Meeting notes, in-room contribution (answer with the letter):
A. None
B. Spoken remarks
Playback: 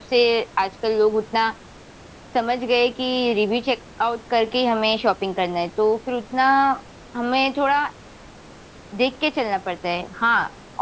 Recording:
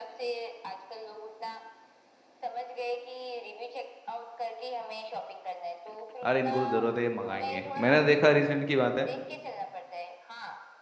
B